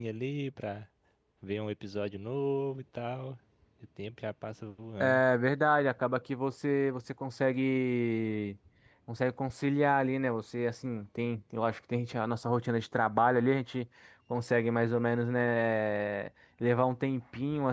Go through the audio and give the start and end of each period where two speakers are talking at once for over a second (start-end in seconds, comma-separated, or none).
none